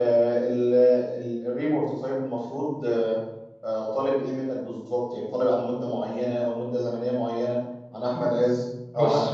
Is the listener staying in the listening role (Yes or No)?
Yes